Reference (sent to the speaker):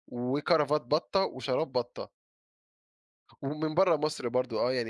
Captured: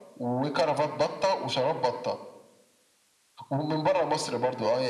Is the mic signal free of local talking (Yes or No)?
Yes